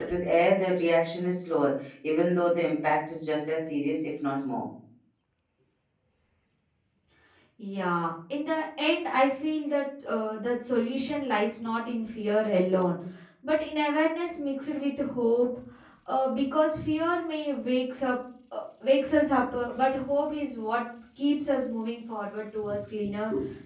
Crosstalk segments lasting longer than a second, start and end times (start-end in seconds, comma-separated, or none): none